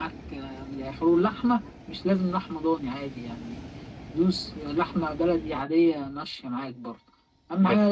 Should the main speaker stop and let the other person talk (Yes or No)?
No